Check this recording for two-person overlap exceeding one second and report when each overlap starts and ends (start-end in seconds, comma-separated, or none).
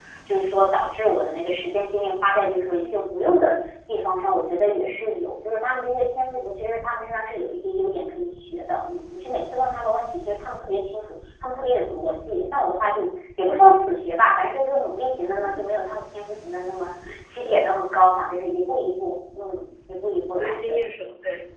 none